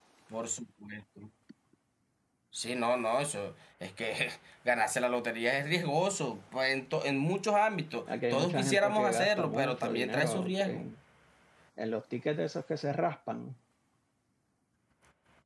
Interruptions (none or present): present